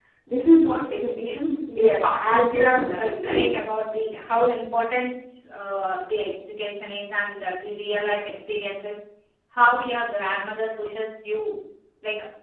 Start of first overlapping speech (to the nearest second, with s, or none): 2 s